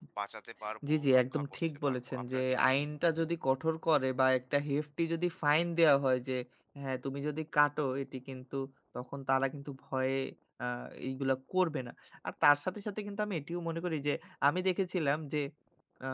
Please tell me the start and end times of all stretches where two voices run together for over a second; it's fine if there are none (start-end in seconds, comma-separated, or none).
0.9-2.7